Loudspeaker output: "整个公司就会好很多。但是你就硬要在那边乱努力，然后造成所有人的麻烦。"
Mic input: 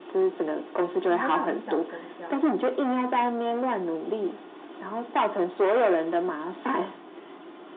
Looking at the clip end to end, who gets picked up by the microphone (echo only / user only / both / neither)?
both